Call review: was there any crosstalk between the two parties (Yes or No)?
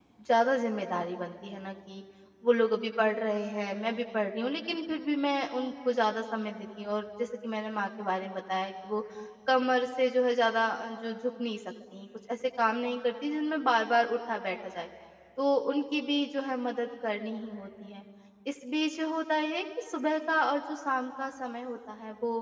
No